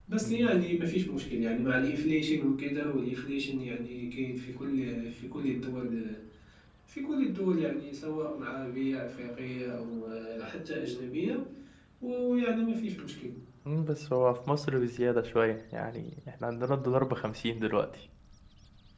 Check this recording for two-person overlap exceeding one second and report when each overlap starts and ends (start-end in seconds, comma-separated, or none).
none